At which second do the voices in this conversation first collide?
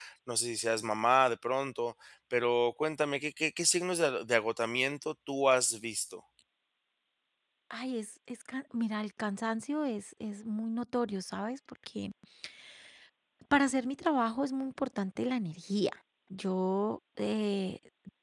none

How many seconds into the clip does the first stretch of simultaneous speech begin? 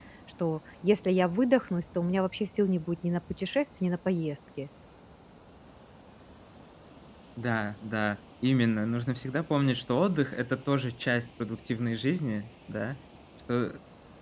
none

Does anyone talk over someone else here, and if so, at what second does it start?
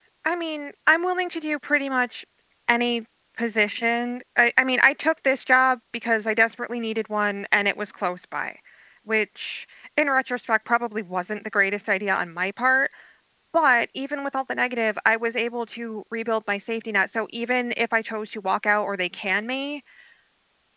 none

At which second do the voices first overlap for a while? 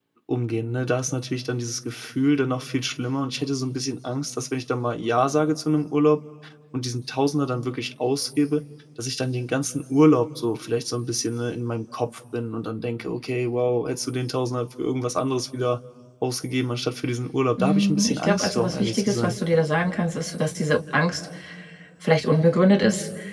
17.6 s

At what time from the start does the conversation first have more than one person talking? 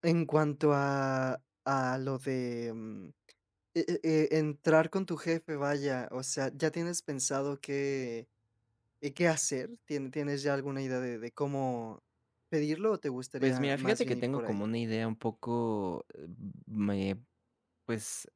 13.4 s

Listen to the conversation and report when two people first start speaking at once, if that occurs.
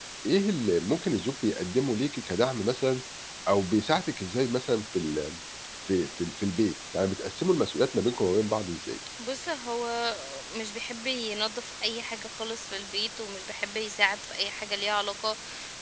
none

